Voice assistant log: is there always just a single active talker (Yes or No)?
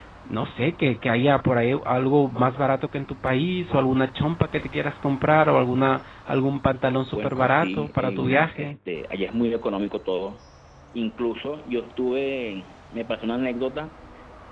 No